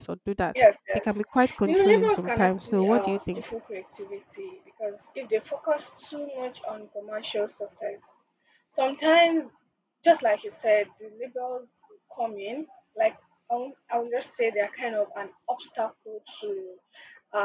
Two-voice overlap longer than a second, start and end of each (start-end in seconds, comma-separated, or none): 1.6-3.4